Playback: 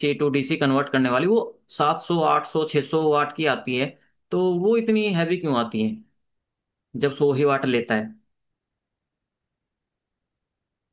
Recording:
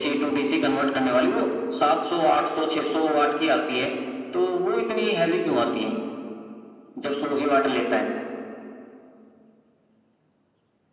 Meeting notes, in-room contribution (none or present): none